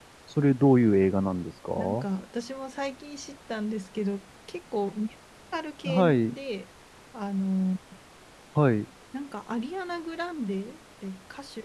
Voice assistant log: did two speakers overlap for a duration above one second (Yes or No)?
No